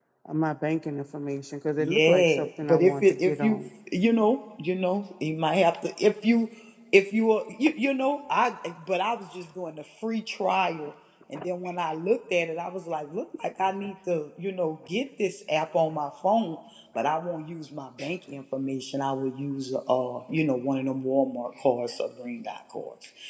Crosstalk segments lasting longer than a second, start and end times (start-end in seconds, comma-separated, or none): 1.8-3.6